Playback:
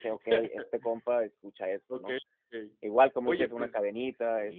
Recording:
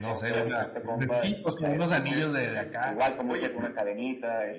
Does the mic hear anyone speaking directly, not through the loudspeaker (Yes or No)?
Yes